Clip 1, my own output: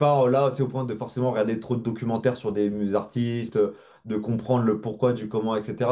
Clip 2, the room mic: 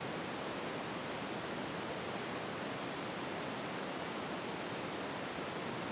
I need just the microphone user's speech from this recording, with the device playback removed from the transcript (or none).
none